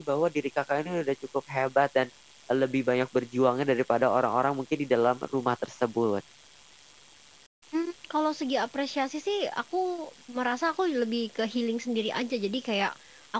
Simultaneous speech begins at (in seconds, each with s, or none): none